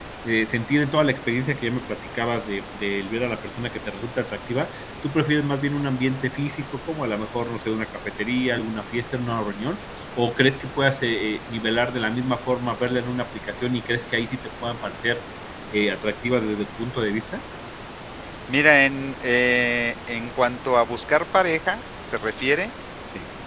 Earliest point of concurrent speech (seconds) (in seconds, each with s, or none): none